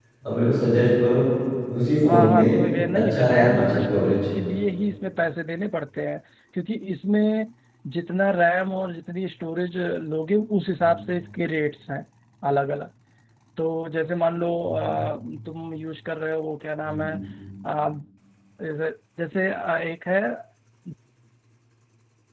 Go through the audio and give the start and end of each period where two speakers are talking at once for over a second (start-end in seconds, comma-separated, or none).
3.0-4.2